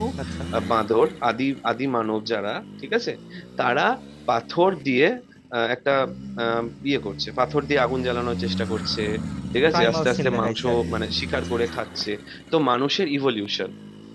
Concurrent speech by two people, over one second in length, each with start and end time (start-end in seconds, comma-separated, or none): 9.7-11.0